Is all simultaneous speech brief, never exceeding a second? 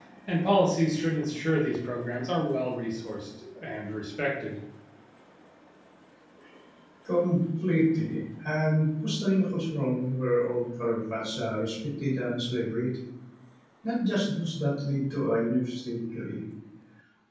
Yes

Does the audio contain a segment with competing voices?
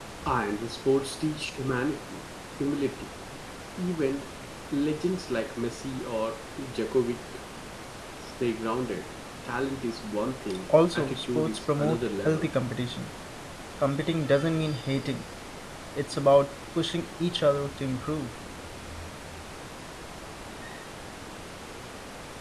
Yes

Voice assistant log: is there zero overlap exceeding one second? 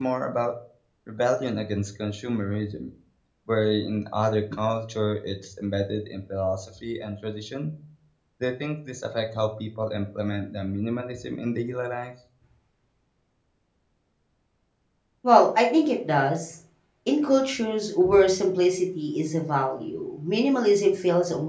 Yes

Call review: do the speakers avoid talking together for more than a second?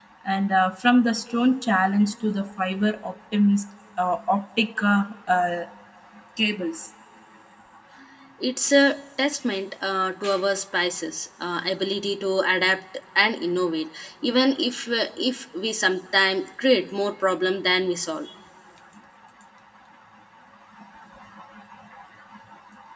Yes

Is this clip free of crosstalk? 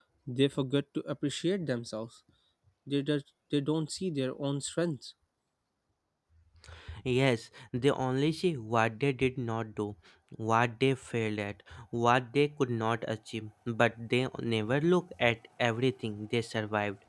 Yes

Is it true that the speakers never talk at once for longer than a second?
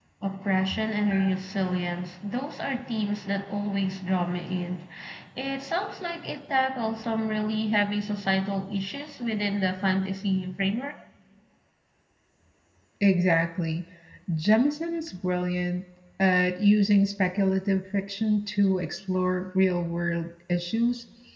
Yes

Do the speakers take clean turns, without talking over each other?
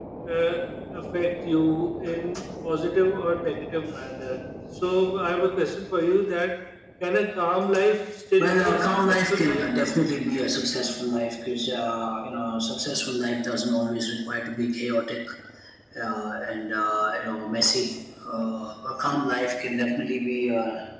No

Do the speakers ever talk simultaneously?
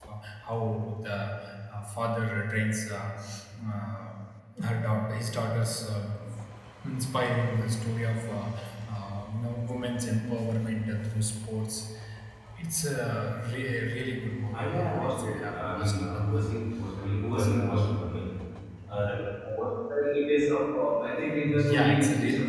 Yes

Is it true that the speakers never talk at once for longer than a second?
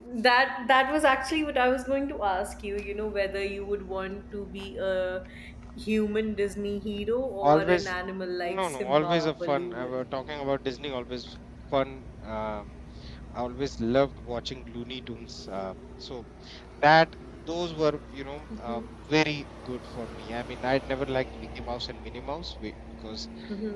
No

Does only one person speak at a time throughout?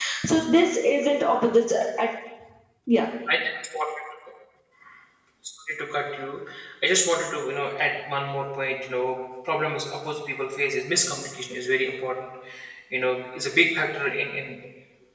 Yes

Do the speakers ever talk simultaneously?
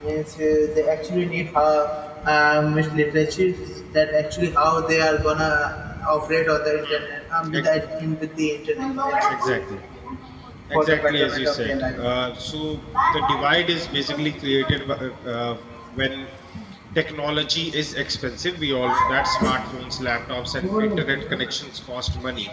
Yes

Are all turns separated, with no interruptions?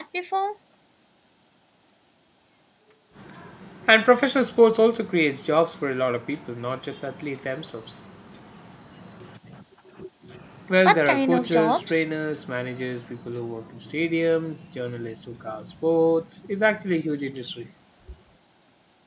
No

